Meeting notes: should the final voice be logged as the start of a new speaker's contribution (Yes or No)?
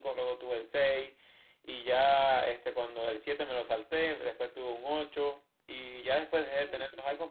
No